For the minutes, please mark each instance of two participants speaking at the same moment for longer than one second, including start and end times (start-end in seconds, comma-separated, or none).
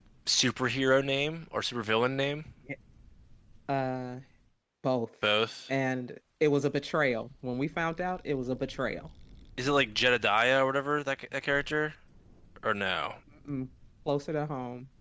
none